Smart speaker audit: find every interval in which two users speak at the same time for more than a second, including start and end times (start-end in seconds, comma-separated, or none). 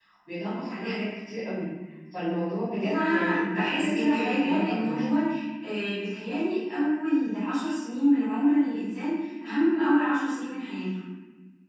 2.8-5.0